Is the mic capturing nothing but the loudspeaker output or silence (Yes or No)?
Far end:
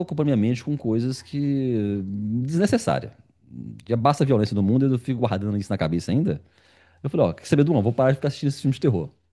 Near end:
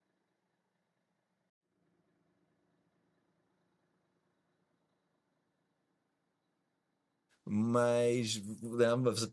No